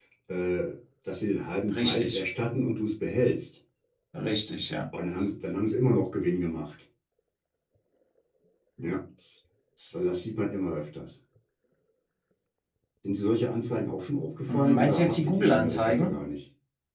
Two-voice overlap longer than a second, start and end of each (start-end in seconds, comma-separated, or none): 14.5-16.1